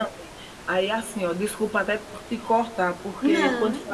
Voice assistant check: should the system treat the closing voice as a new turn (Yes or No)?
No